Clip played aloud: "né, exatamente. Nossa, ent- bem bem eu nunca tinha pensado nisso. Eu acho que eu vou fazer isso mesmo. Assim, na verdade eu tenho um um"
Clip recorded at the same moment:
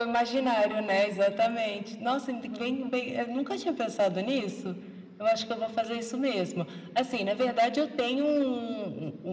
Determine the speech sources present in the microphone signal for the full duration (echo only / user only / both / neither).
echo only